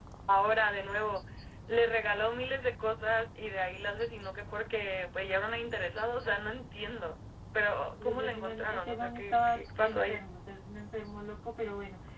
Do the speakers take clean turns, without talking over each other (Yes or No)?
No